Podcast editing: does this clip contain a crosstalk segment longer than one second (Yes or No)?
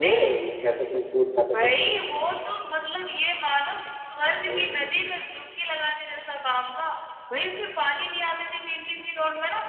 No